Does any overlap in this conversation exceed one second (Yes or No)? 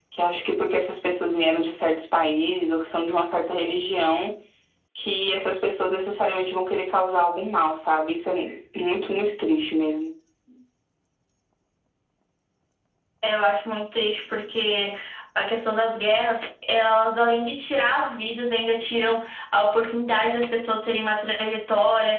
No